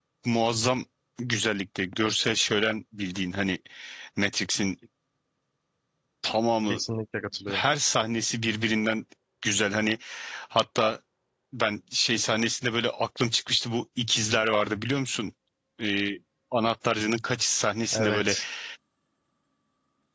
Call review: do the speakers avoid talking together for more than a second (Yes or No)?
Yes